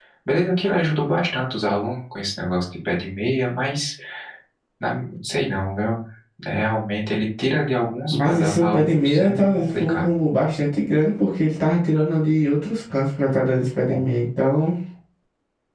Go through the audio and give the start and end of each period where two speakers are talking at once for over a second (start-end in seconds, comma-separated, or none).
8.1-10.1